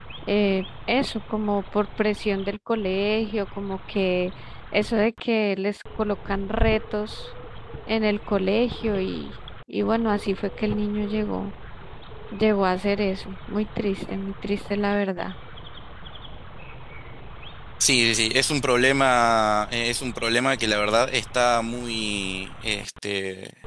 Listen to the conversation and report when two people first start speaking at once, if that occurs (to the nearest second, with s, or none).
none